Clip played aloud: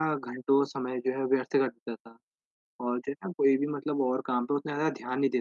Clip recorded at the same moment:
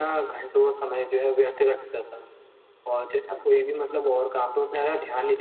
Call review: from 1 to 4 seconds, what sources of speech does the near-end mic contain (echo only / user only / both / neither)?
echo only